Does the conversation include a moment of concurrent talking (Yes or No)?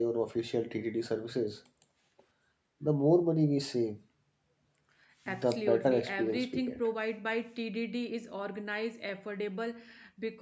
Yes